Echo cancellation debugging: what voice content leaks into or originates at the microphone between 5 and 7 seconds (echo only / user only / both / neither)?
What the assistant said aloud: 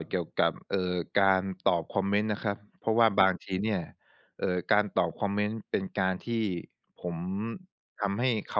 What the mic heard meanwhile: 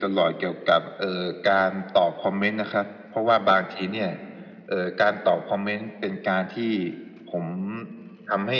echo only